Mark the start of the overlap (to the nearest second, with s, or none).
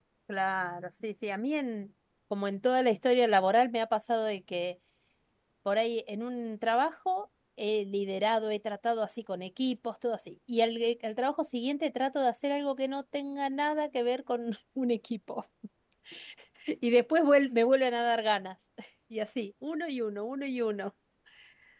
none